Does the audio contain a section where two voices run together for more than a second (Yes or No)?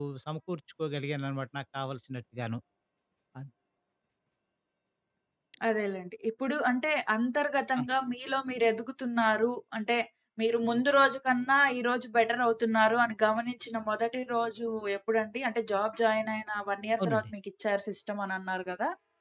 No